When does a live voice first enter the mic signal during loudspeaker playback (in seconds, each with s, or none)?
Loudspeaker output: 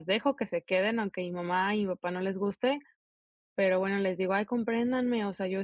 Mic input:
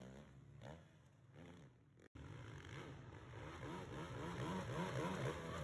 none